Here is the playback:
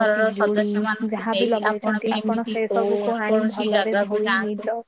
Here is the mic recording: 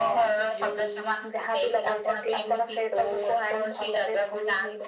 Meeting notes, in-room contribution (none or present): none